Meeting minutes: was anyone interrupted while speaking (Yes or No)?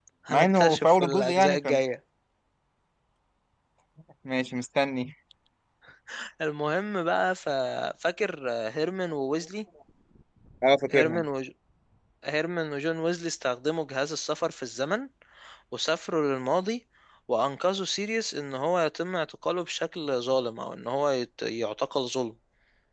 Yes